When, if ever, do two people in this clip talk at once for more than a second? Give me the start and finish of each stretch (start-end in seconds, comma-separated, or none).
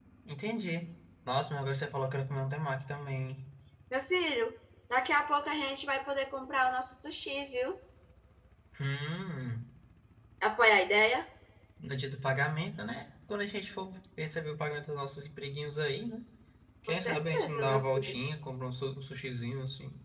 16.9-18.2